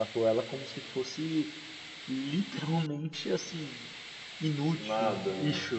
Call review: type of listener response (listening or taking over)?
listening